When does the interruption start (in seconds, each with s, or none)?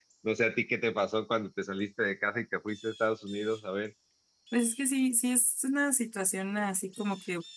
none